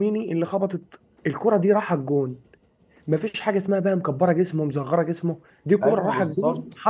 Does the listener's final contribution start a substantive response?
Yes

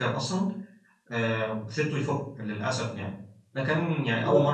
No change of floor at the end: Yes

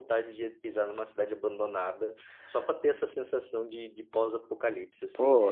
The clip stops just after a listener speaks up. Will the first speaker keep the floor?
No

